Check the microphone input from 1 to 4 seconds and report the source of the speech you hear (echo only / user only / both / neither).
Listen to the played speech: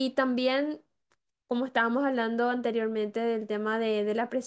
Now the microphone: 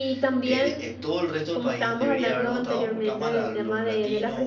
both